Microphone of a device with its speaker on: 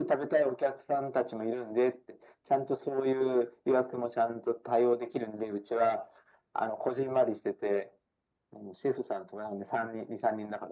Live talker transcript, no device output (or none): none